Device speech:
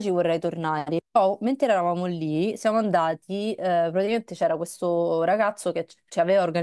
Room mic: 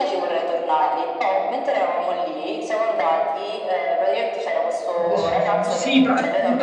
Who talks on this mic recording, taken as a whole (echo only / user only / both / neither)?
both